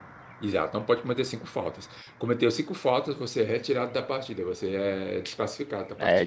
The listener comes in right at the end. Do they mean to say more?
Yes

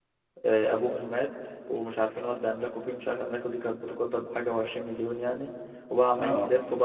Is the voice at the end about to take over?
No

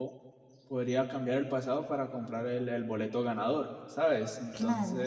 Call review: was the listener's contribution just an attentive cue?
Yes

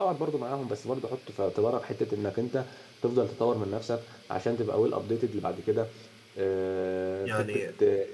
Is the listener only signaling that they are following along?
Yes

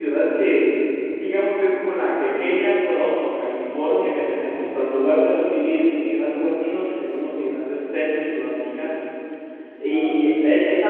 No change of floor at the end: Yes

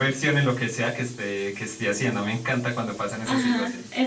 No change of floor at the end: No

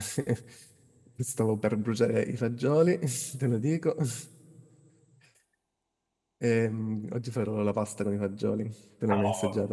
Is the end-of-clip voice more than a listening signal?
Yes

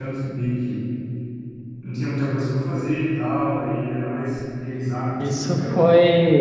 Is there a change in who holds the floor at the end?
Yes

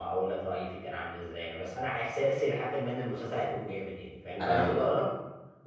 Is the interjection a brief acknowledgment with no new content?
Yes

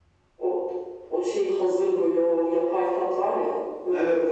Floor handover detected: Yes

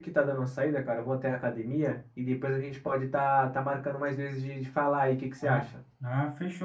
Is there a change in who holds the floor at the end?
Yes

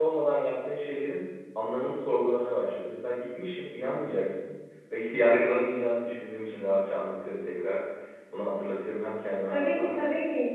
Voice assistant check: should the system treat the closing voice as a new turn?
Yes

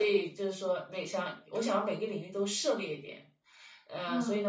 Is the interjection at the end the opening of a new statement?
No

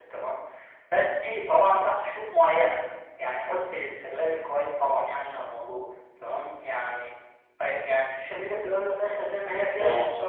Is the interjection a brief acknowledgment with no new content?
Yes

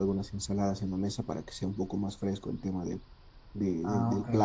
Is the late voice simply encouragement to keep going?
No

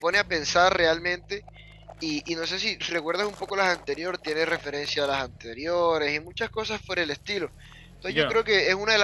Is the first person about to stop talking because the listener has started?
No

